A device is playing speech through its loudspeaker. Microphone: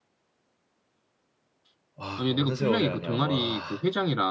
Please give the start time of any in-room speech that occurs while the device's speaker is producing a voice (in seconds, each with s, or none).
2.0 s